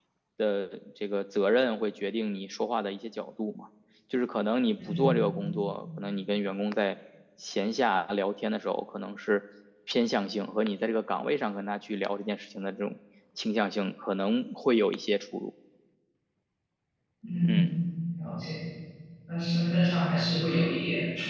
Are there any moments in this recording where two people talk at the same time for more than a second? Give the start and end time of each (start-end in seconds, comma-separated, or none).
none